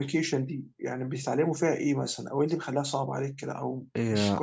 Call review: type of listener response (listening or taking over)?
taking over